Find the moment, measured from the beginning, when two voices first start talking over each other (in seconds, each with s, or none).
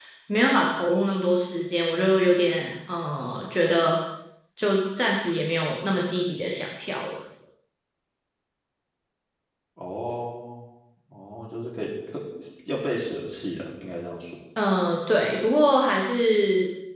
none